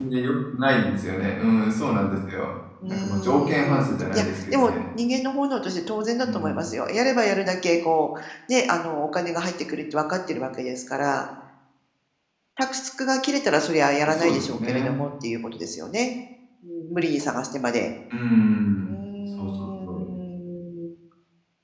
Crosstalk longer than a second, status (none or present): present